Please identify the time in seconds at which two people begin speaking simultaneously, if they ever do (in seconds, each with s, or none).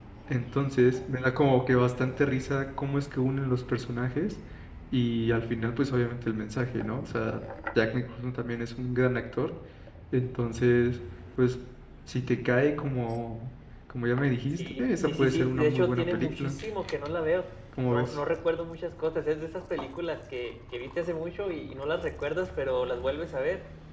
14.6 s